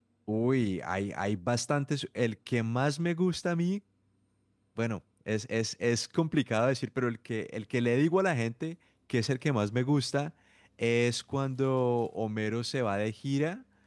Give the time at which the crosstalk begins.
none

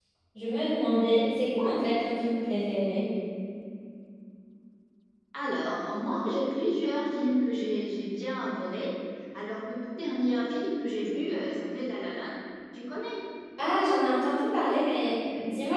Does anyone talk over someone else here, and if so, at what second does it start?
none

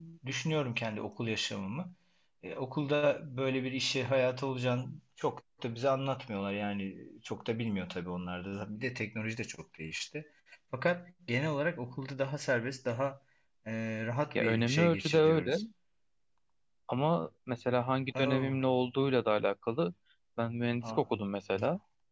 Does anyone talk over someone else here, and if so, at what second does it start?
14.4 s

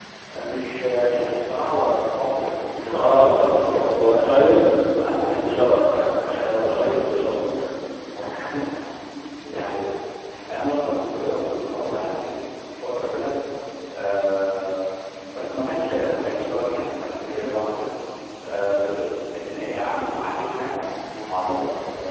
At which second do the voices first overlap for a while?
2.8 s

